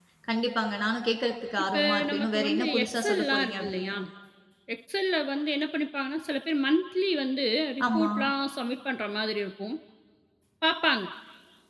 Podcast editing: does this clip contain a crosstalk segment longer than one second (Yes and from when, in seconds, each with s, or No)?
Yes, from 1.7 s